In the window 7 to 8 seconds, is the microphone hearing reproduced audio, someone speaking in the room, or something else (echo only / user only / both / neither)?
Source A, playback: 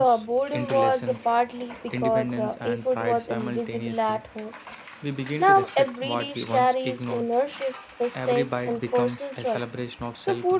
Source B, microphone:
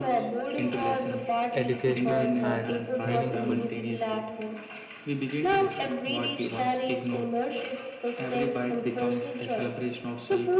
echo only